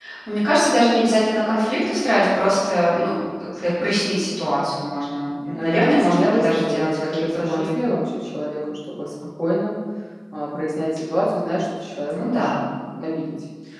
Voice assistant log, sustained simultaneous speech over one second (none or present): present